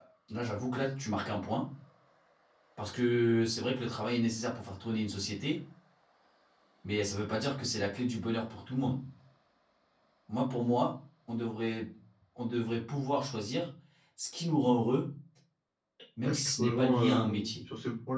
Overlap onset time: 16.2 s

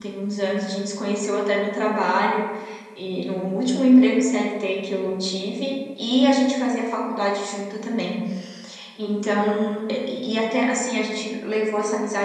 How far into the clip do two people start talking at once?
none

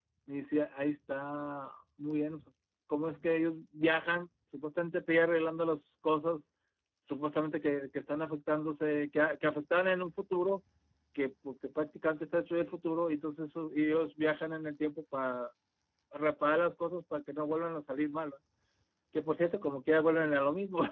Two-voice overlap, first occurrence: none

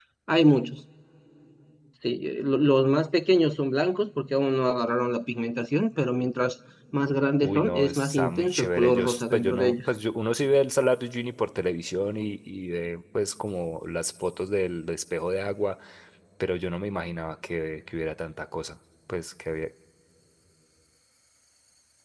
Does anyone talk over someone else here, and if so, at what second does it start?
7.4 s

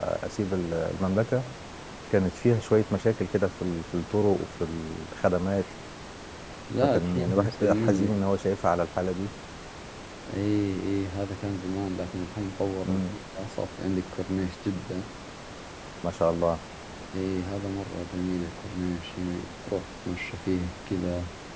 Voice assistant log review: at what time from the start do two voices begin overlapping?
6.8 s

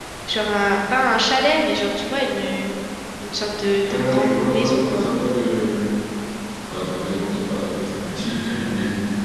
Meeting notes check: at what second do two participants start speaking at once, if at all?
3.8 s

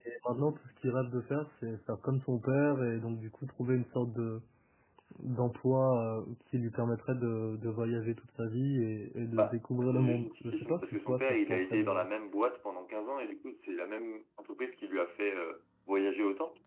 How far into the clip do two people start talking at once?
9.3 s

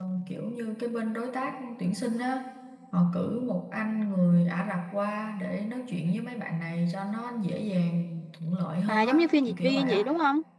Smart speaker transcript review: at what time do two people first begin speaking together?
8.9 s

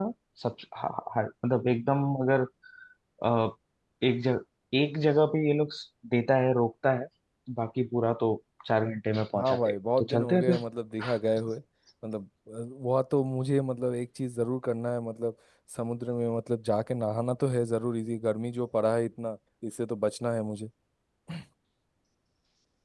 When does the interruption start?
9.3 s

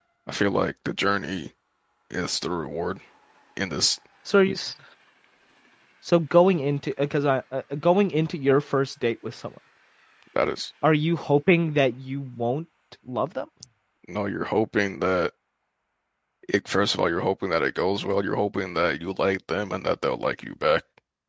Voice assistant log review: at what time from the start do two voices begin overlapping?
none

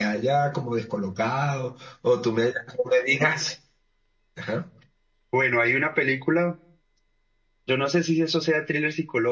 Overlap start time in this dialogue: none

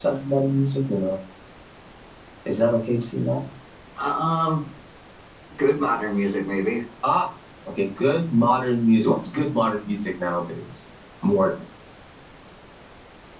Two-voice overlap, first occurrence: none

